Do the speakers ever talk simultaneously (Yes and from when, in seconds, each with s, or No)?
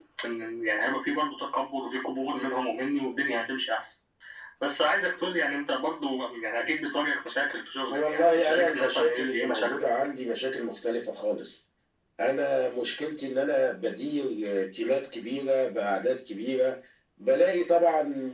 Yes, from 7.9 s